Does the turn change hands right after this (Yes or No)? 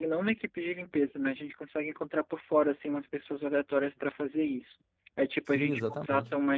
No